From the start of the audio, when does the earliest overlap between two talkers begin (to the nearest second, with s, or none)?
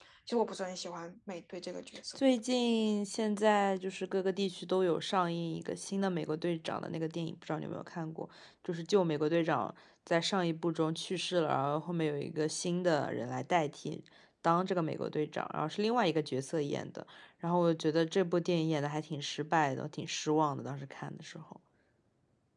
none